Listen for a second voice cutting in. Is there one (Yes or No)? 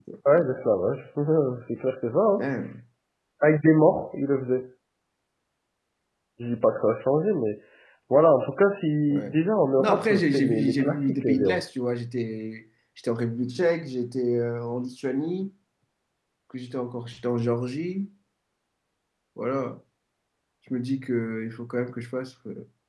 Yes